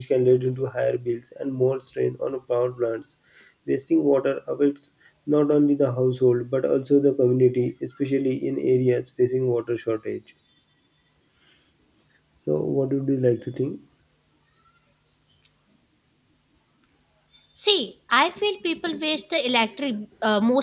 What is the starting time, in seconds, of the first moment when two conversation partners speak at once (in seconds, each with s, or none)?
none